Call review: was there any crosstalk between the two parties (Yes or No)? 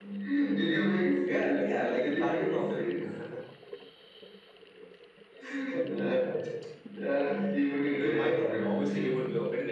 Yes